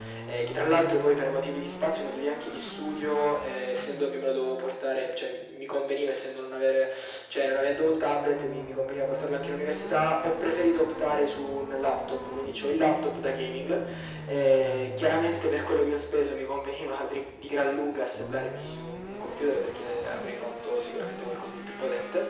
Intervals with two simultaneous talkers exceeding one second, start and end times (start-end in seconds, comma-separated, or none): none